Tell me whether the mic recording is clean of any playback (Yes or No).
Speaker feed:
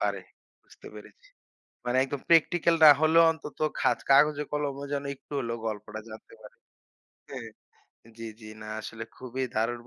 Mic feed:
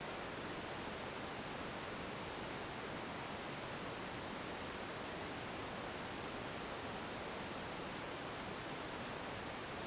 Yes